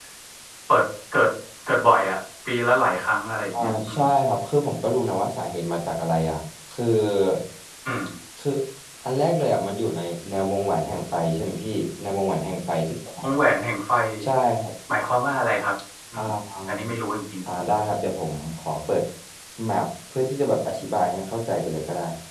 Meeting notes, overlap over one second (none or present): none